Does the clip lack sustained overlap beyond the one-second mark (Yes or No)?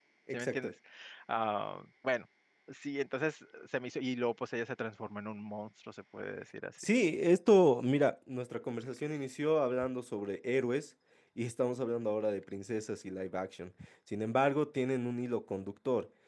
Yes